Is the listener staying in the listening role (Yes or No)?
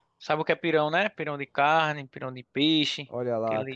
No